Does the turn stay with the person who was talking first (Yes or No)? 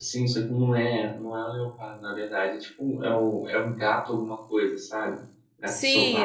No